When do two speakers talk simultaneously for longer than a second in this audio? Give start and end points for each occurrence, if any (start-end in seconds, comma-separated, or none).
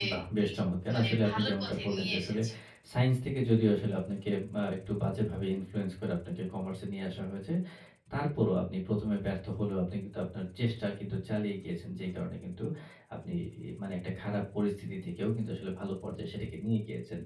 0.9-2.4